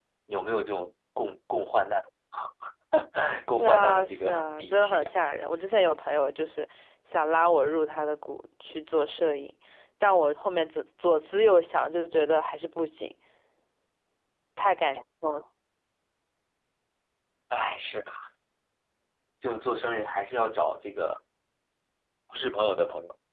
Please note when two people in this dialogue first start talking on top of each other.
4 s

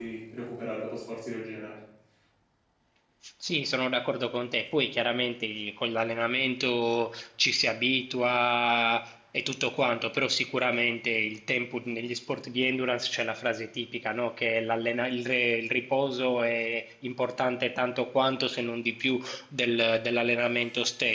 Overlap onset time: none

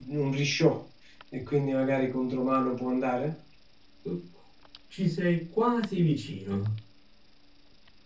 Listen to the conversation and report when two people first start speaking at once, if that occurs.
none

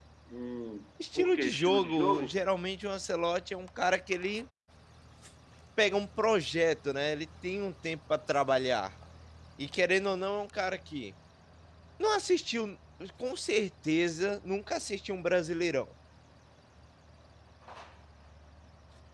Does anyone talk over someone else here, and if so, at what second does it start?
1 s

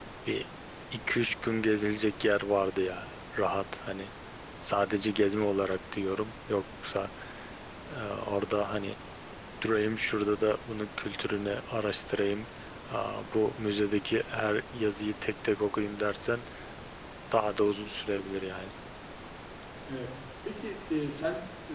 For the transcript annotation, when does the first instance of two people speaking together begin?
none

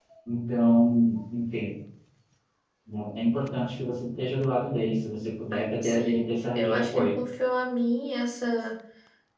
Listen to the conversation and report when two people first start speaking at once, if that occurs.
6 s

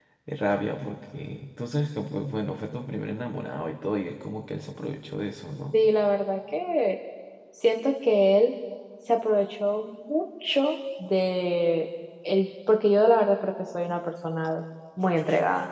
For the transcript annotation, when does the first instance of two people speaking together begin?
none

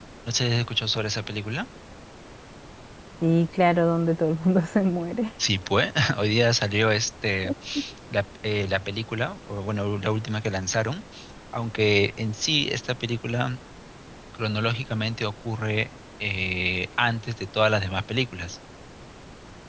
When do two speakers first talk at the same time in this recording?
none

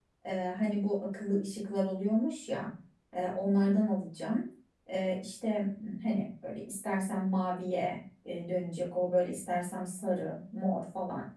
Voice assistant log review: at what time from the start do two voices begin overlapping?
none

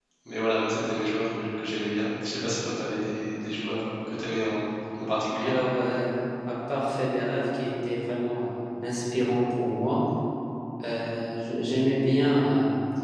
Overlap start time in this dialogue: none

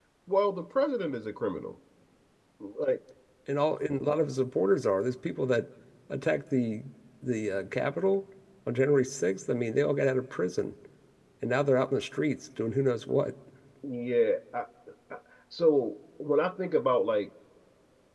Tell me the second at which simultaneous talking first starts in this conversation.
none

